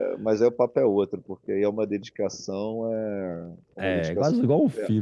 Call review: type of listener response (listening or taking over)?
taking over